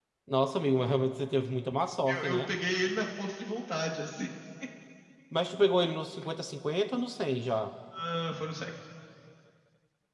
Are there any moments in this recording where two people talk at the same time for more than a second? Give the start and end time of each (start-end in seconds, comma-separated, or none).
none